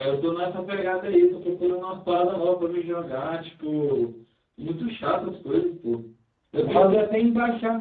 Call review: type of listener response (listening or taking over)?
listening